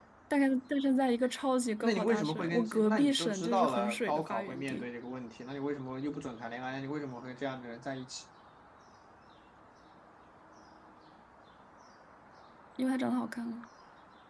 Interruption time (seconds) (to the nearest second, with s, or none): 2 s